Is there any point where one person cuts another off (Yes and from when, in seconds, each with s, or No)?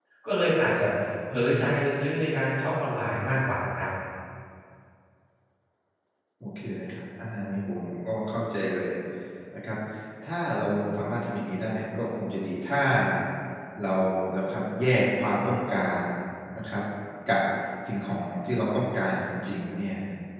No